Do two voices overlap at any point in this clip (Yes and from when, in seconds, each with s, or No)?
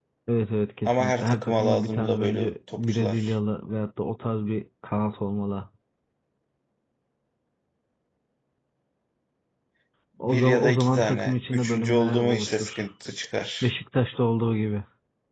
Yes, from 0.8 s